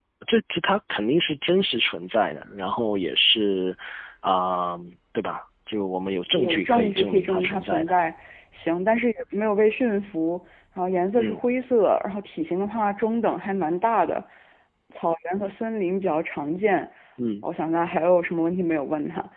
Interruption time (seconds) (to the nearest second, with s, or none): 6 s